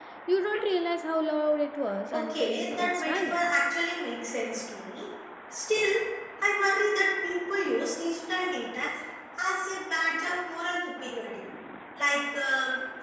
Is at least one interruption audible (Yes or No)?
Yes